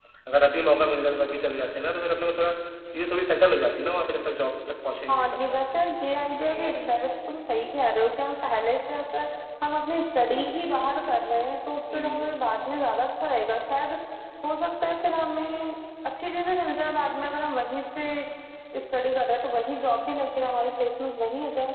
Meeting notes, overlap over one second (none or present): none